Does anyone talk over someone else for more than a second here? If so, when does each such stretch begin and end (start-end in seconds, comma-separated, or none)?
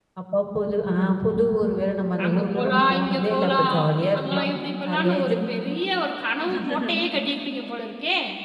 2.2-4.5